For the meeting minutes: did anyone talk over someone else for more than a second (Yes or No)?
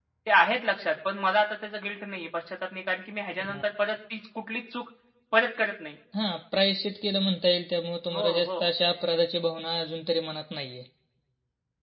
No